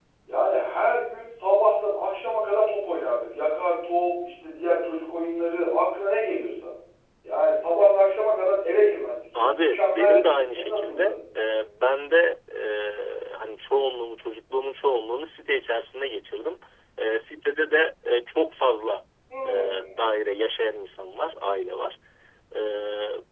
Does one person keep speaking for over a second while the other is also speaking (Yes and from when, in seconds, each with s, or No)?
Yes, from 9.3 s